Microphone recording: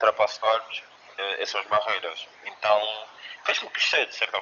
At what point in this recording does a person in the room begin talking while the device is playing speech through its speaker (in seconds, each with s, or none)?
none